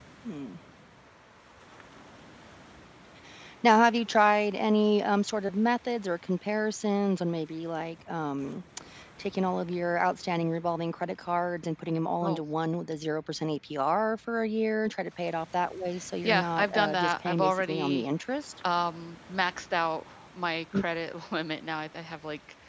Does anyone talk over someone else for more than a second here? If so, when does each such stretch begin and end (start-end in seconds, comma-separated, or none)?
16.2-18.1